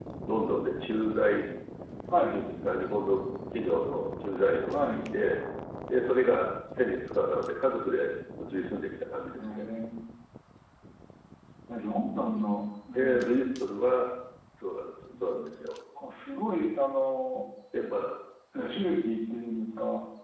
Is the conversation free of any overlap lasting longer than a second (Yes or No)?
Yes